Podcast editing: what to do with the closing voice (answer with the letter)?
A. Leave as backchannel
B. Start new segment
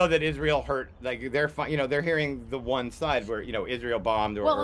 B